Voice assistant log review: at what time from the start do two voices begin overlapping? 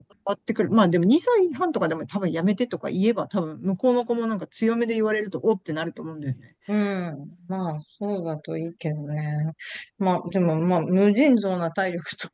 none

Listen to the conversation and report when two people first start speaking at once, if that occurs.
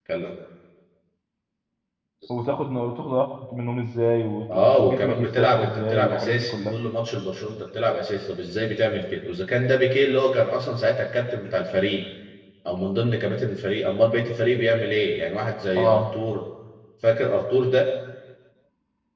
4.5 s

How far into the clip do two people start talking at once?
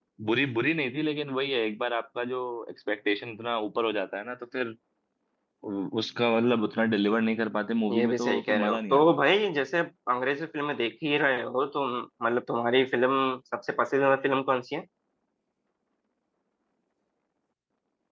7.9 s

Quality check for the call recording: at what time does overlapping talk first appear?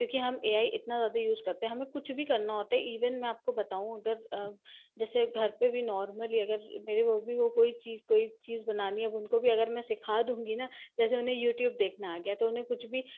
none

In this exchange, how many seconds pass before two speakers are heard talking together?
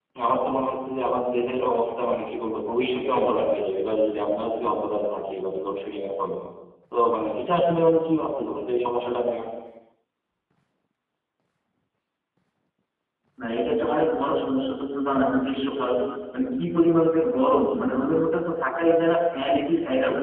none

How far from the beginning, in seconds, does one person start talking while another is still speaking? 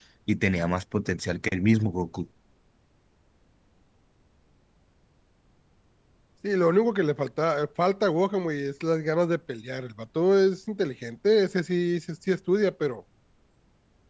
none

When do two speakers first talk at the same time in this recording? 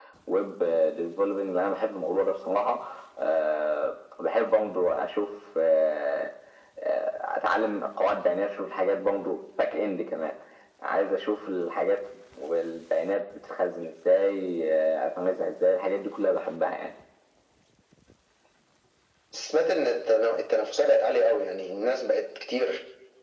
none

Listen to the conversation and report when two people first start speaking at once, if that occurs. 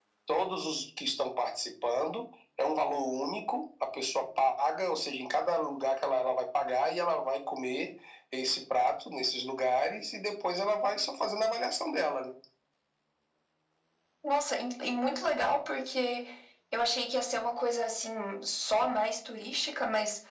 none

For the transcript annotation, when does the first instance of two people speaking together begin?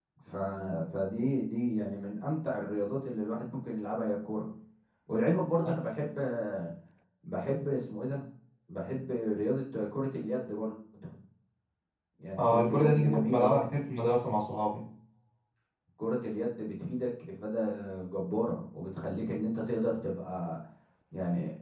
12.4 s

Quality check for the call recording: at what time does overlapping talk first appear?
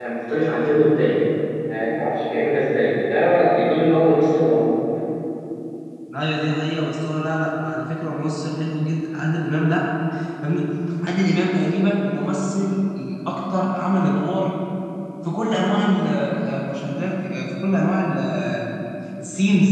none

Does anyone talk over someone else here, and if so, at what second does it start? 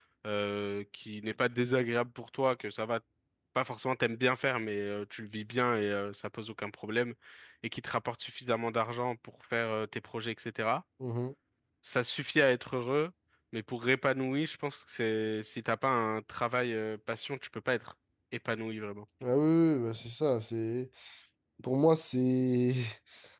none

